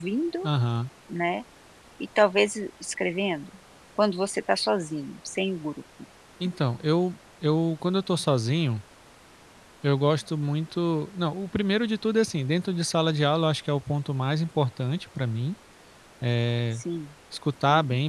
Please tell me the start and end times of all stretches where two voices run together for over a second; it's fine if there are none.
none

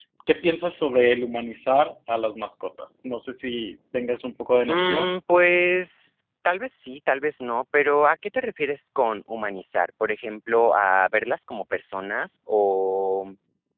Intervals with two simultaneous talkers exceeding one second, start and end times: none

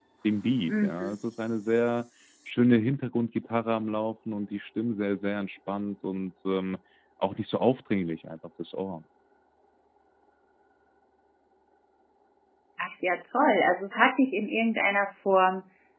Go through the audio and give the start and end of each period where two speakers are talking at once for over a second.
none

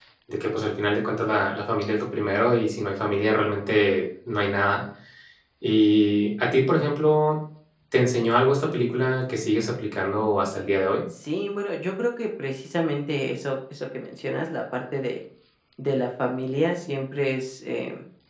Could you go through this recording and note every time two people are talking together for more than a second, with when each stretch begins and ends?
none

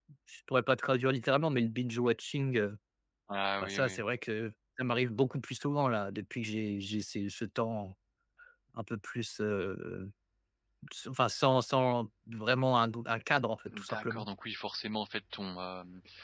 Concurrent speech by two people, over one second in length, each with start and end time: none

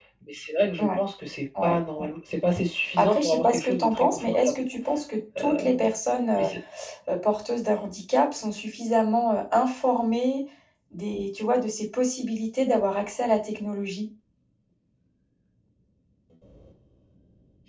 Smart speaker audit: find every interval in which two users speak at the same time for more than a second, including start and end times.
3.0-4.6

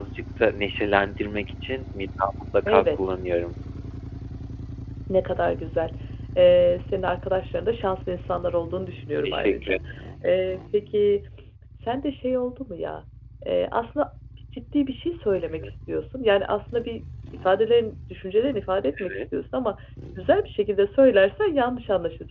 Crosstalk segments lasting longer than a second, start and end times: none

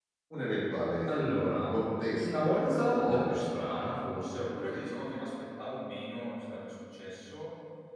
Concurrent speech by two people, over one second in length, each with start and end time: 2.2-3.5

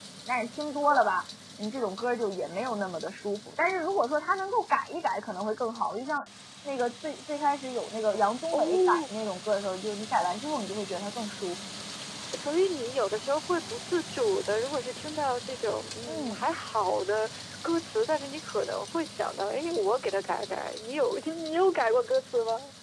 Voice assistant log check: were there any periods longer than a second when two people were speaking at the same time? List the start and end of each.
none

